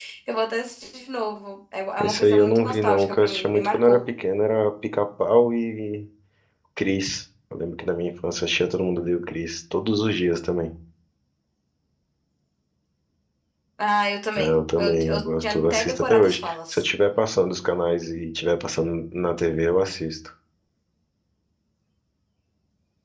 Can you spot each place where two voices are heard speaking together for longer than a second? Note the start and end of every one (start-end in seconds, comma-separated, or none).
2.0-4.0, 14.4-16.9